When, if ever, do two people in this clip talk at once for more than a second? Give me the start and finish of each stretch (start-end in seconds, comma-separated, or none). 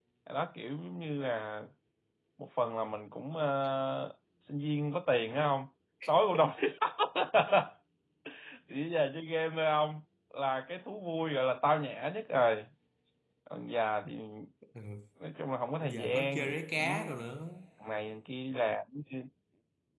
15.8-17.1